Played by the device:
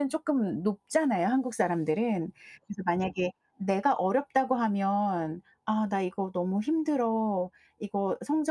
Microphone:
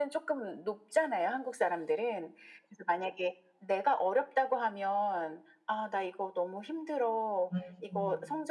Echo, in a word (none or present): present